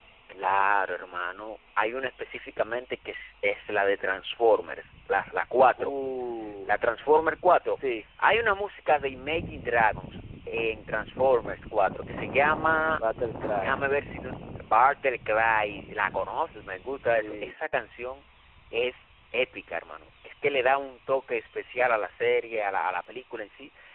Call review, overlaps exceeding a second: none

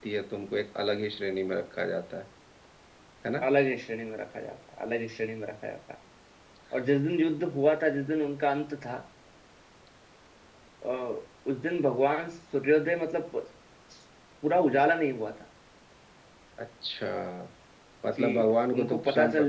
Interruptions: present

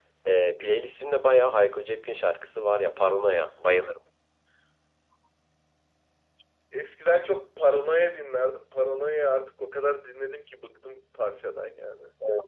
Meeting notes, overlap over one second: none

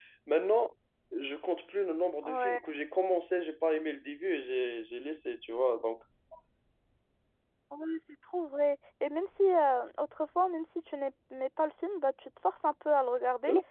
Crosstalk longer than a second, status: none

